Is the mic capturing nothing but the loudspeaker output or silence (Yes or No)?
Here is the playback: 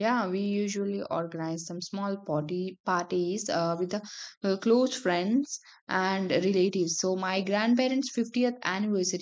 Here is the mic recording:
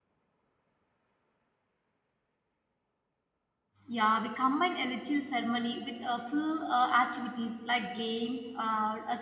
No